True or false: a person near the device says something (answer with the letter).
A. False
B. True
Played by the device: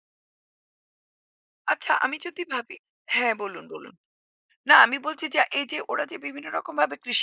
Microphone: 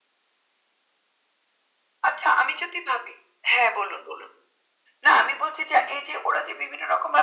A